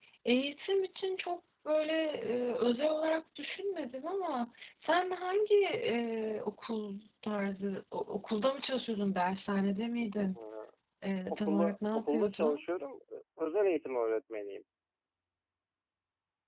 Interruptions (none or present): present